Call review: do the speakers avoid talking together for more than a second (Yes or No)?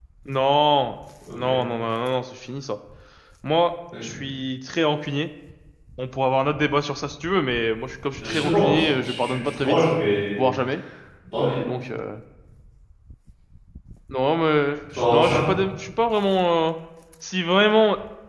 No